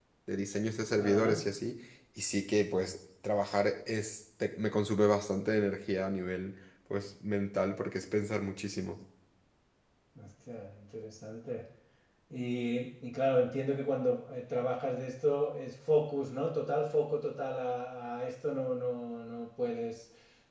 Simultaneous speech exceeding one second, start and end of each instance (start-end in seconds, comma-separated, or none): none